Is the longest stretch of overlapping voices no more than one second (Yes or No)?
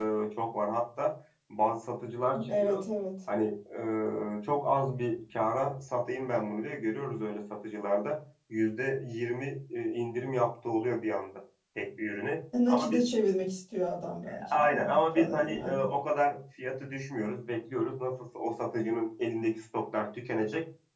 No